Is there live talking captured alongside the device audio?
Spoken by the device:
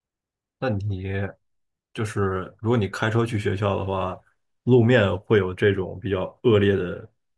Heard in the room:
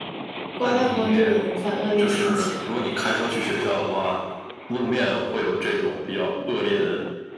Yes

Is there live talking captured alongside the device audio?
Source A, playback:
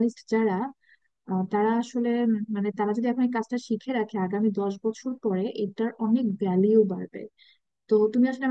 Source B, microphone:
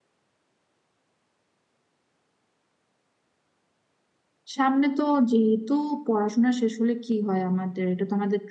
Yes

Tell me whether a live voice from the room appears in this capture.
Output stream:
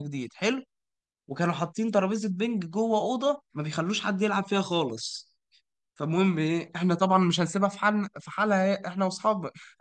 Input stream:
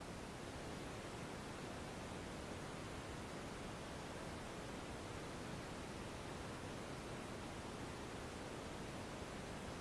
No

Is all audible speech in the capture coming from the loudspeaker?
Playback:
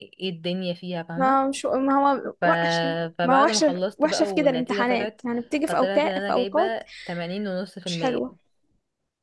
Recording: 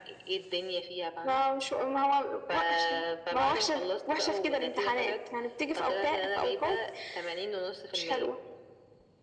Yes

